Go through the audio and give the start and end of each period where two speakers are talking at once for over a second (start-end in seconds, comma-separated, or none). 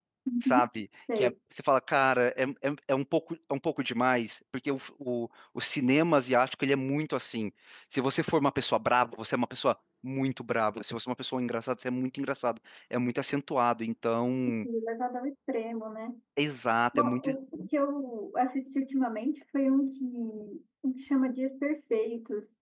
none